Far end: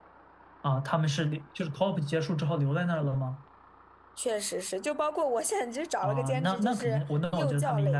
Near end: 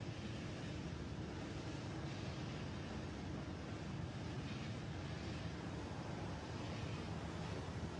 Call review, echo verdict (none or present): none